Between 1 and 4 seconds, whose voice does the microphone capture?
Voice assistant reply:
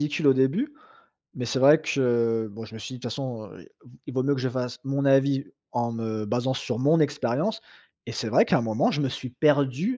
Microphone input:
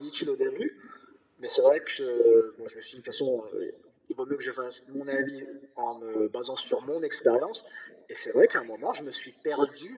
echo only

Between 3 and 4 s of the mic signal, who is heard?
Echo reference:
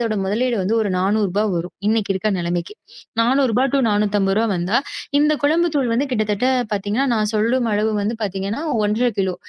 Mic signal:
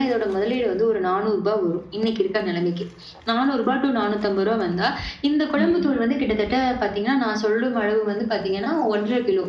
echo only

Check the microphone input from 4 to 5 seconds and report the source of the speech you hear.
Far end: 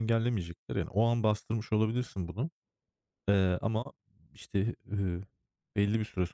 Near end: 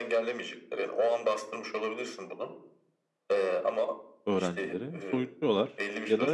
both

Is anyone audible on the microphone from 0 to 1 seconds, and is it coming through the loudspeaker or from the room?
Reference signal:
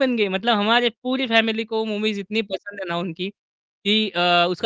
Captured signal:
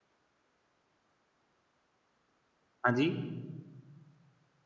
neither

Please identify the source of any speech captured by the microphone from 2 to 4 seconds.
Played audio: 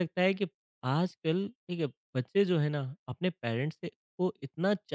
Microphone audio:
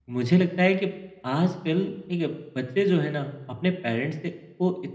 echo only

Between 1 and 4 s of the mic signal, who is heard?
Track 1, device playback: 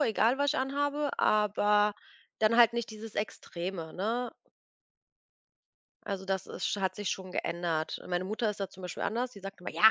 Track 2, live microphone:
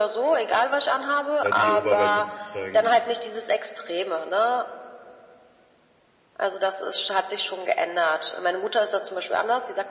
both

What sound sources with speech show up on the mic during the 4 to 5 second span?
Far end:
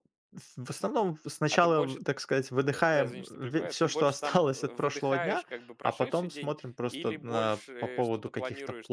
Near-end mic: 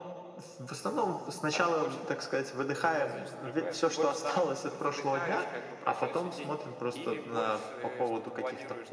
echo only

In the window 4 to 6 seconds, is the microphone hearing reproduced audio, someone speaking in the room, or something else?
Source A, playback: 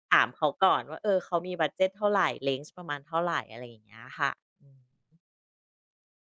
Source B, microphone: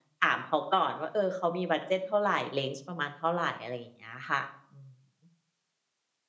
echo only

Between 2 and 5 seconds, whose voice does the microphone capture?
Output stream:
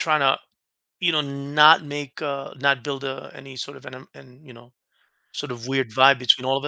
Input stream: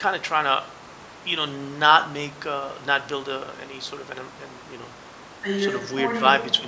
echo only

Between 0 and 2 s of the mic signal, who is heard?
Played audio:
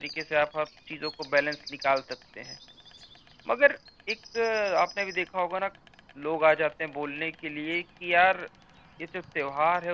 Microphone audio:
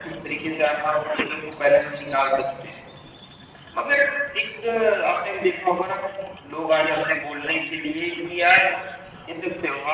echo only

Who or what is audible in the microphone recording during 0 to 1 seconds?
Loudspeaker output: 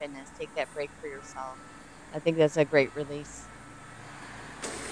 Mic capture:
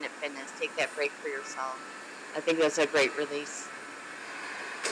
echo only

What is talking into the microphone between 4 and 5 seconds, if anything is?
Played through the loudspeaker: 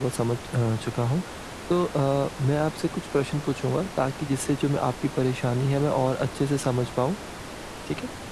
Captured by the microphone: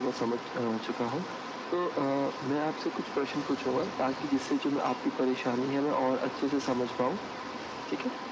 echo only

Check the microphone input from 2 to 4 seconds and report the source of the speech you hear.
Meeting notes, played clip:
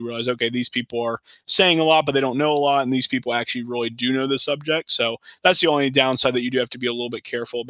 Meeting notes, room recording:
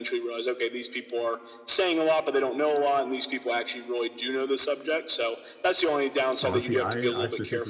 echo only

